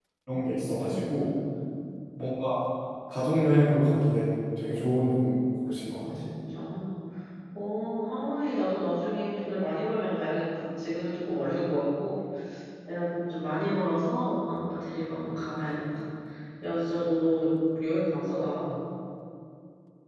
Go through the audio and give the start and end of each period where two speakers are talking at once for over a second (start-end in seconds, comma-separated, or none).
none